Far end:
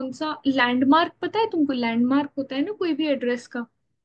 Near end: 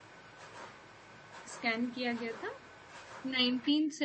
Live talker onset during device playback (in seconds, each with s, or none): 1.5 s